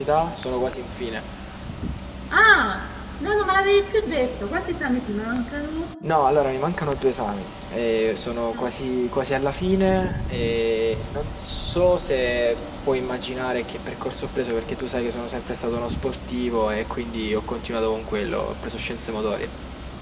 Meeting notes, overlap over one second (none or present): none